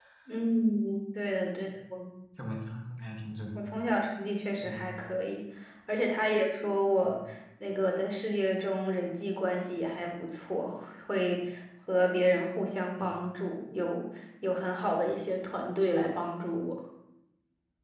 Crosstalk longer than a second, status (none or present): none